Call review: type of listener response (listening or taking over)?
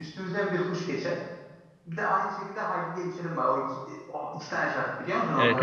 taking over